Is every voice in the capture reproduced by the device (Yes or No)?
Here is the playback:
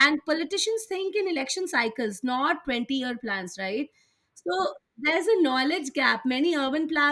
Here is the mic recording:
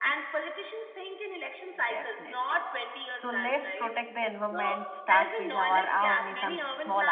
No